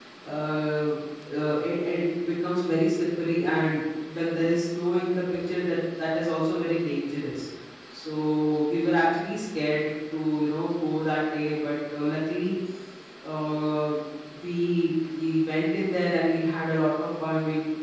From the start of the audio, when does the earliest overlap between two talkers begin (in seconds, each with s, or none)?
none